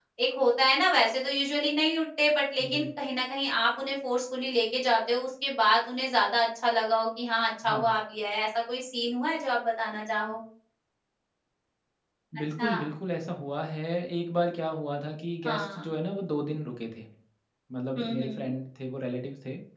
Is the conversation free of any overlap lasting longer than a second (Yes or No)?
Yes